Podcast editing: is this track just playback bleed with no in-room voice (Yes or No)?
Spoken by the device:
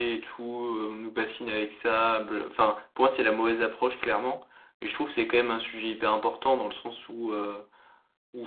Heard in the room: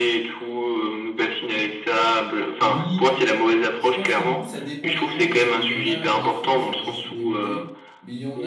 No